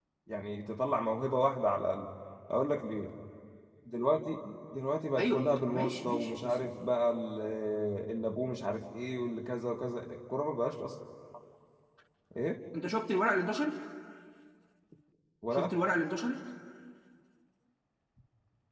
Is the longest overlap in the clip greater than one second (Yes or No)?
Yes